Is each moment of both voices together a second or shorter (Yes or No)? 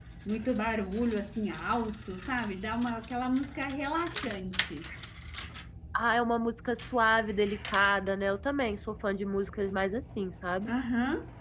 Yes